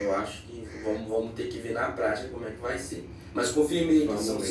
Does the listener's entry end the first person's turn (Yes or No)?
No